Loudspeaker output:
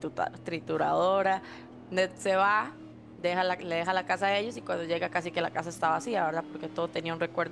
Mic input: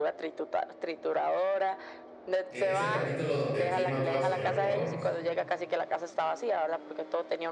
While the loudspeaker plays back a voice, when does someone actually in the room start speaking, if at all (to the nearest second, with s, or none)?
2 s